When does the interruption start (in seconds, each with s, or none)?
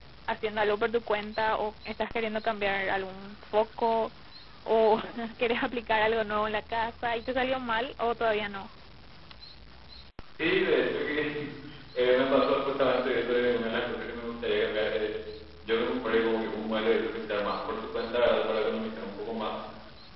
none